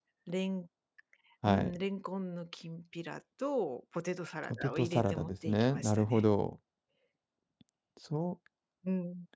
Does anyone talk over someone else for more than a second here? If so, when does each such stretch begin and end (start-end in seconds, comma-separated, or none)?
4.4-6.2